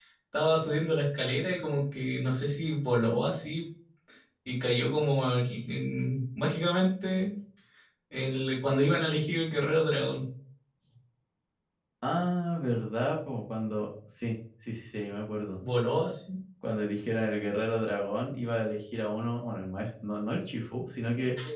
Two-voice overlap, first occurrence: none

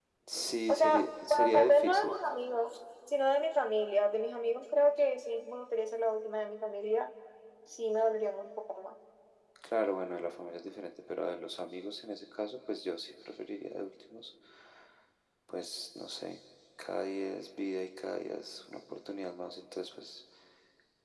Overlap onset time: 0.7 s

